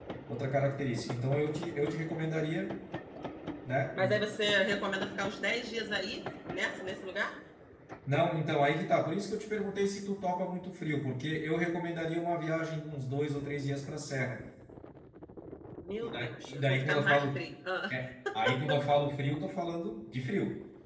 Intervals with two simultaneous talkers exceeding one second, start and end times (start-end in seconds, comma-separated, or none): 16.0-17.4